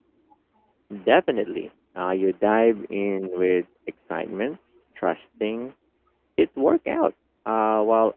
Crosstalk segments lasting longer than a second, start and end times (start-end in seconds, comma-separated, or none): none